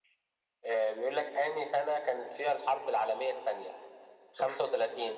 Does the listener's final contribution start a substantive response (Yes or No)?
No